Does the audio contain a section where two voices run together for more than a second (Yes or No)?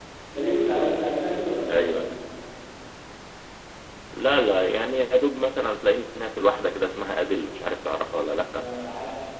No